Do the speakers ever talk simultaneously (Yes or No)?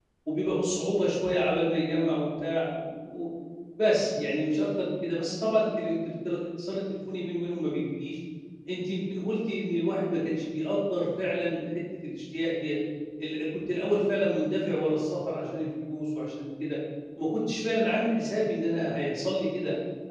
No